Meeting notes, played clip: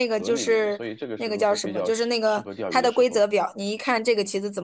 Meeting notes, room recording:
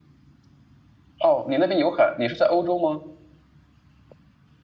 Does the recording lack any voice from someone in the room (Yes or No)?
No